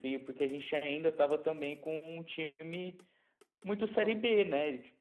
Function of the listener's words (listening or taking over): listening